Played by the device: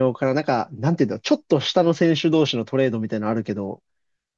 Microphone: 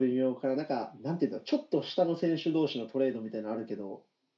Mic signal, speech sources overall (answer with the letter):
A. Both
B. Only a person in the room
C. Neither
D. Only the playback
D